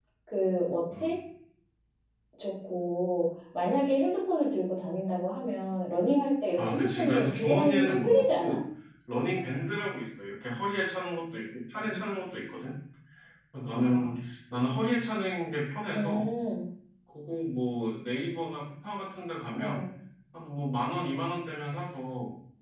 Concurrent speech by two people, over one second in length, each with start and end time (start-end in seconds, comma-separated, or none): 6.6-8.6